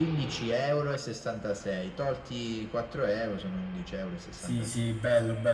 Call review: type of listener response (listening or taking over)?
taking over